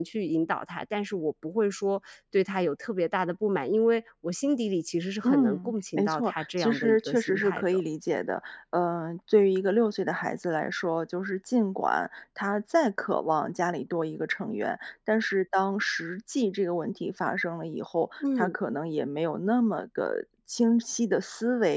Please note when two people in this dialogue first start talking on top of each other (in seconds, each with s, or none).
5.2 s